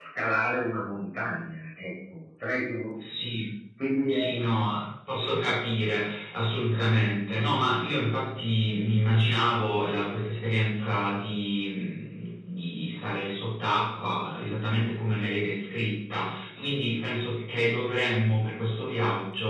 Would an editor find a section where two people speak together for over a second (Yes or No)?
No